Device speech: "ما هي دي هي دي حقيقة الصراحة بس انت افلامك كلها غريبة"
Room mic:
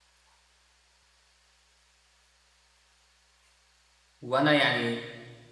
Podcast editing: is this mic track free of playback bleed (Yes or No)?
Yes